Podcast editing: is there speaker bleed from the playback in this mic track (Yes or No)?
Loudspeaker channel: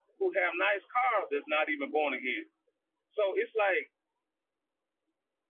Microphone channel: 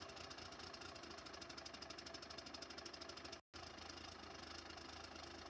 No